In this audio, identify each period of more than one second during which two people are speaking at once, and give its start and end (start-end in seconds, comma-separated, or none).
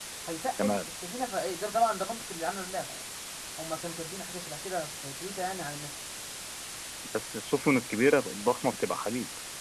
none